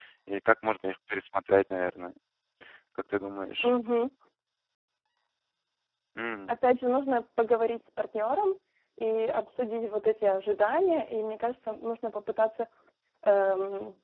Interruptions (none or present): none